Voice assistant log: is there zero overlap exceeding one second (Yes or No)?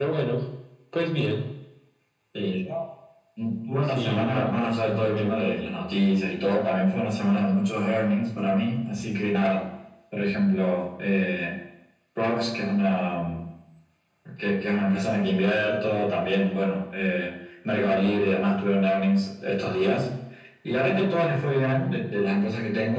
No